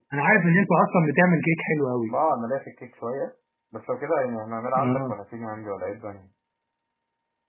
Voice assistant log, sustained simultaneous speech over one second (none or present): none